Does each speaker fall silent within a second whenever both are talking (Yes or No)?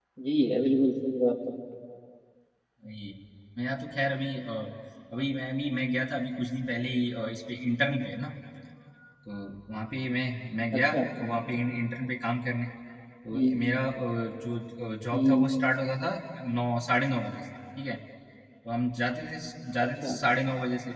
Yes